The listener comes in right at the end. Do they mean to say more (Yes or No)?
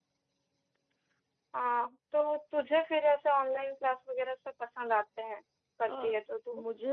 Yes